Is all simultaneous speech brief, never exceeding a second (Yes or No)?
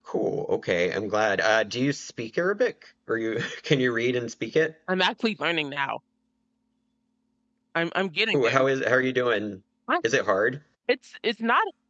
Yes